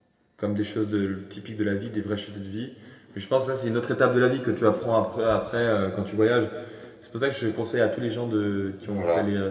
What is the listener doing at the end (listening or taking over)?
listening